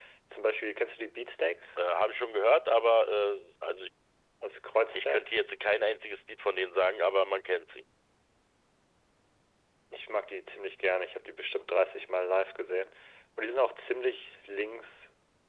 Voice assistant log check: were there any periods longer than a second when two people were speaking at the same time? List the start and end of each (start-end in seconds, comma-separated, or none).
none